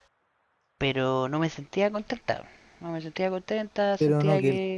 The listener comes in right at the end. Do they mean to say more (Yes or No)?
Yes